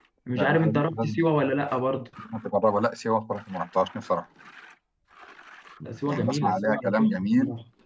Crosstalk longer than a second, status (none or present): present